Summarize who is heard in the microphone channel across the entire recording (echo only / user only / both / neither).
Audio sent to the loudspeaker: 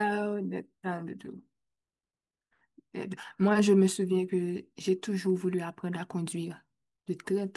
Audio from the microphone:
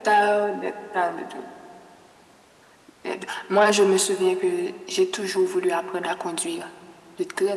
echo only